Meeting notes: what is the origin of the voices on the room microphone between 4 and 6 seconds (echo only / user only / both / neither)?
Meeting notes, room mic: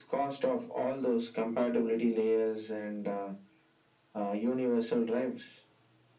echo only